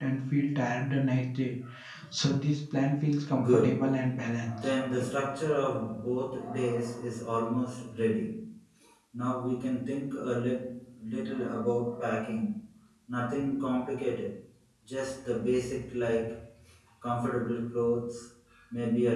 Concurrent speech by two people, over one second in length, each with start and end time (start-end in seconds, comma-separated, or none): 3.4-4.7